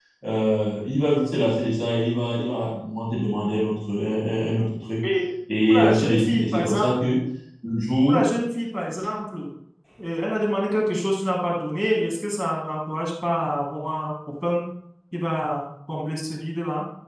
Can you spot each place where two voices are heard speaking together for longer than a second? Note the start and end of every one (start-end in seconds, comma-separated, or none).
5.7-6.9